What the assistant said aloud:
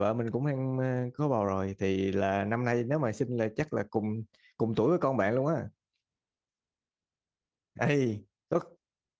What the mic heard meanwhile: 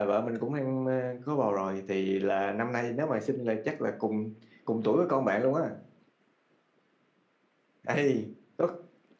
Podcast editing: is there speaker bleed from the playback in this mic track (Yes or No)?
Yes